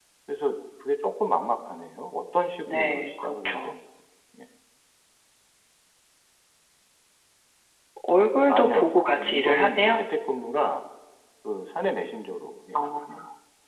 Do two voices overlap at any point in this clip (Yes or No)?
Yes